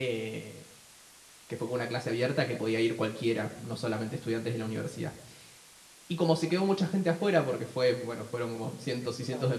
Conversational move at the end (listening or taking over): listening